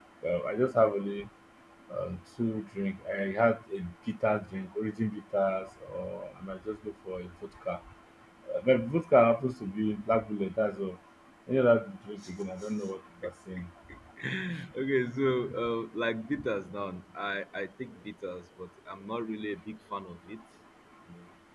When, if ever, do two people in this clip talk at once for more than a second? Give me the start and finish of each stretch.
none

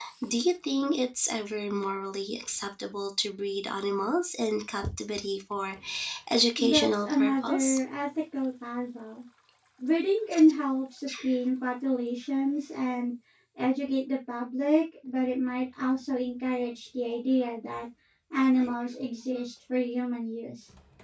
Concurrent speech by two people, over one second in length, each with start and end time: 6.6-7.8

